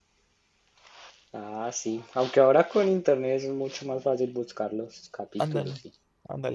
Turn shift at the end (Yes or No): Yes